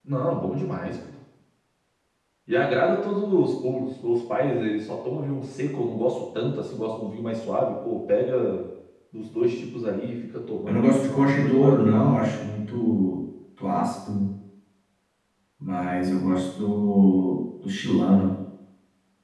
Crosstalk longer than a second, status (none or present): present